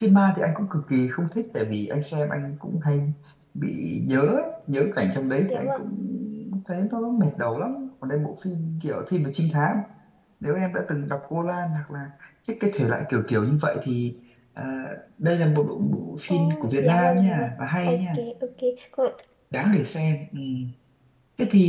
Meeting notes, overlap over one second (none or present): present